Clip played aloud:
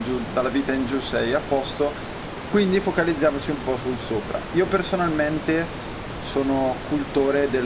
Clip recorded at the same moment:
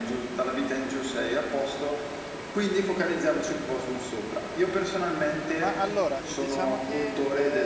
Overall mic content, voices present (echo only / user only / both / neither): both